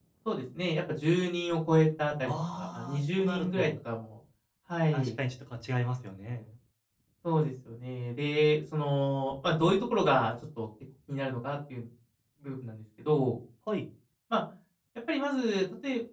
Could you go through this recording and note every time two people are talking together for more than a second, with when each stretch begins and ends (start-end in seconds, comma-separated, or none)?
2.2-3.7